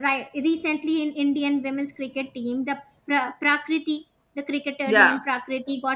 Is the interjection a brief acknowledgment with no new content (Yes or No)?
Yes